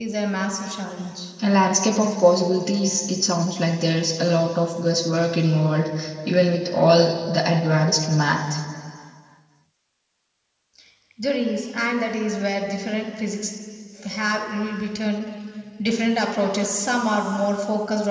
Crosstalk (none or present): none